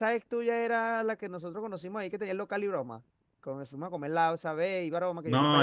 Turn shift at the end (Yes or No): Yes